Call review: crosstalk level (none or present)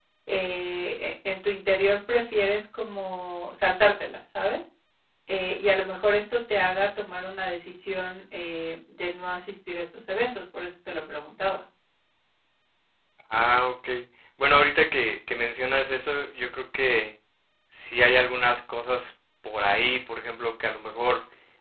none